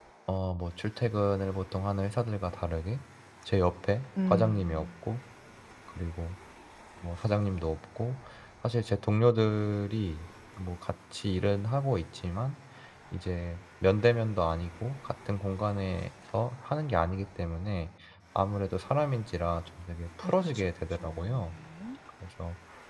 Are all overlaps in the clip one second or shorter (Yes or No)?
No